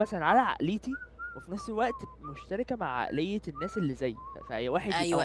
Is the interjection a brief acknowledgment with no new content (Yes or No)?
No